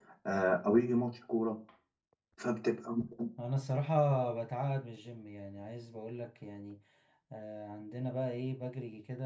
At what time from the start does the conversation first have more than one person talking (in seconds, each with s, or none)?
none